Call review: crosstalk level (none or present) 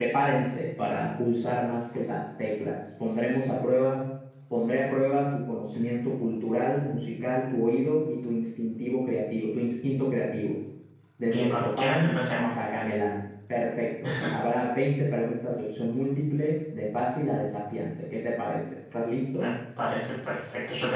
present